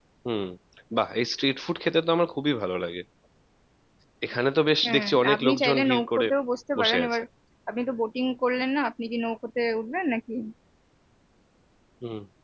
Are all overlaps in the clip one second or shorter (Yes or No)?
No